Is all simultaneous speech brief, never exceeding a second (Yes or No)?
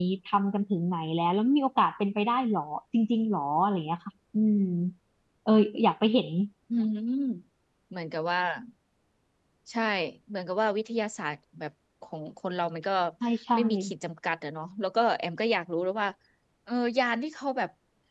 Yes